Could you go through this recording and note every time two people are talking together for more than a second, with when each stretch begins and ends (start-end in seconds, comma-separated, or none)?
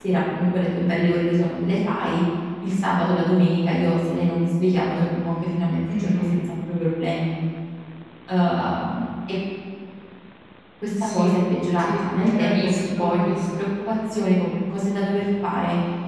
11.8-13.7